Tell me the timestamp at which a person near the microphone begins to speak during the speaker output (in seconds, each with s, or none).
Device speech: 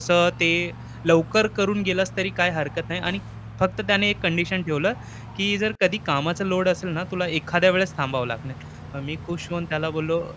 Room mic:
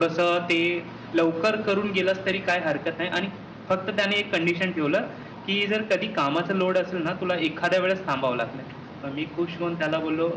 none